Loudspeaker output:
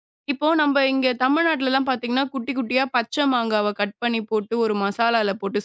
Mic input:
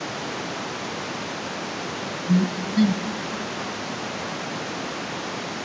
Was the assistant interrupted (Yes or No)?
Yes